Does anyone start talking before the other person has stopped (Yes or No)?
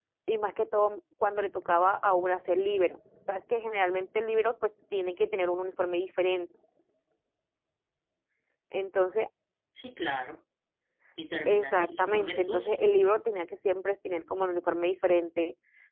Yes